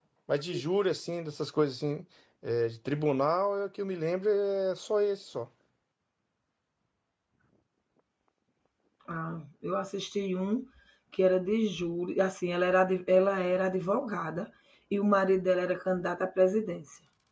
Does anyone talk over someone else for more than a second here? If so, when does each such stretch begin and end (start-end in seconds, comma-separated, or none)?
none